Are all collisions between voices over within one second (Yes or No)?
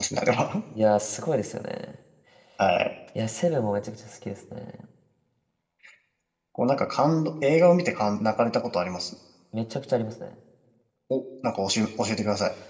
Yes